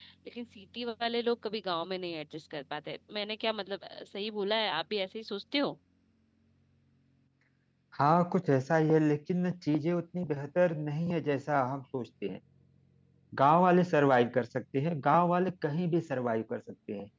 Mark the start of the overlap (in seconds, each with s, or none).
none